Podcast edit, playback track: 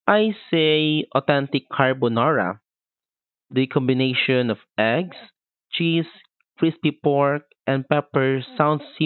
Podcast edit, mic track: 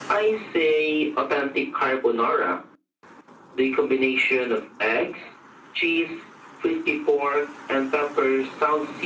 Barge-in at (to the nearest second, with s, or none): none